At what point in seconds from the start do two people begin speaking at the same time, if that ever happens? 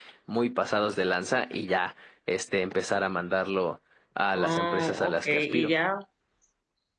4.3 s

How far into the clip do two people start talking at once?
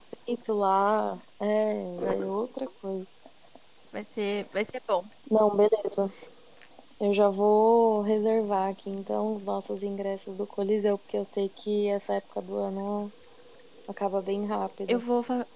none

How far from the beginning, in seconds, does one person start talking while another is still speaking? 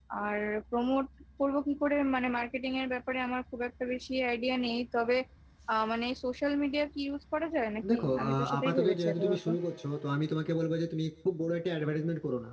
7.8 s

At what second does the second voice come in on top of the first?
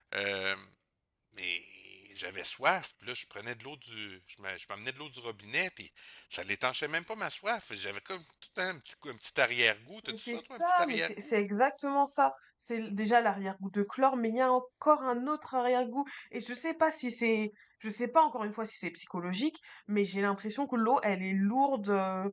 10.1 s

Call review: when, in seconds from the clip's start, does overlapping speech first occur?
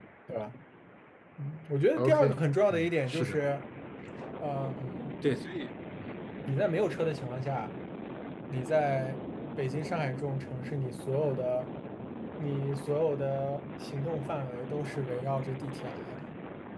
2.0 s

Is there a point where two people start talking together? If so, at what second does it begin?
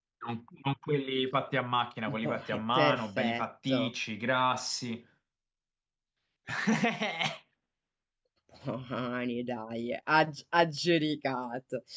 2.1 s

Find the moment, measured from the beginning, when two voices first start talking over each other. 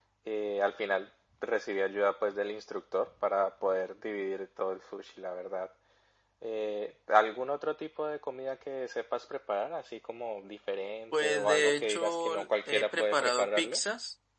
11.1 s

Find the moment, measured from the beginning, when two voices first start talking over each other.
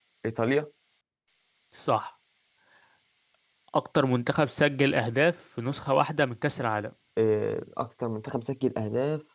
none

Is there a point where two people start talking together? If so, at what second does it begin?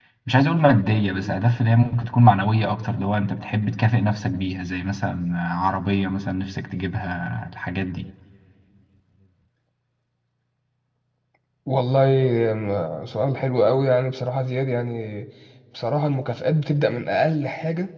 none

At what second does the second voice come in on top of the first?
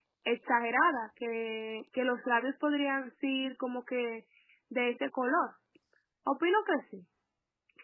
none

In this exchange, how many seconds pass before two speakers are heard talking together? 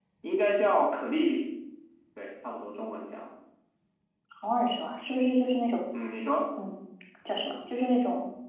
none

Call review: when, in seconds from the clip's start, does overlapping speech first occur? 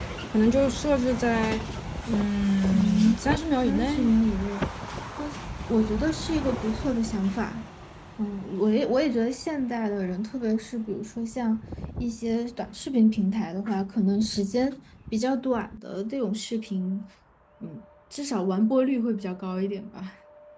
2.7 s

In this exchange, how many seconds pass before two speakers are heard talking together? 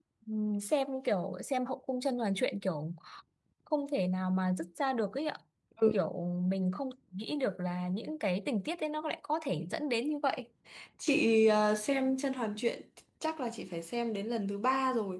none

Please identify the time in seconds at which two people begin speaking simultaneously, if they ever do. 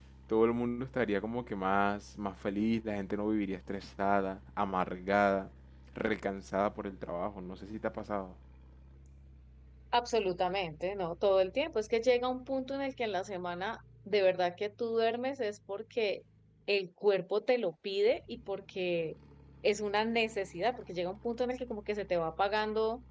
none

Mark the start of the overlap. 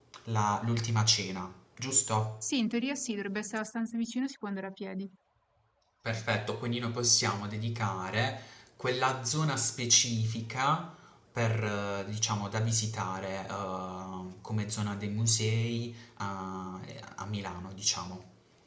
none

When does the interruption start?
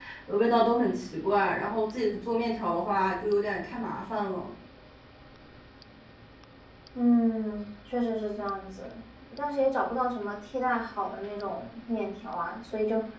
none

